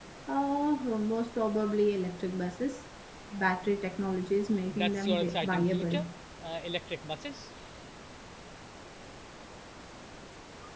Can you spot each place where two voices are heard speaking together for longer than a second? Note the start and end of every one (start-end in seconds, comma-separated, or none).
4.7-6.0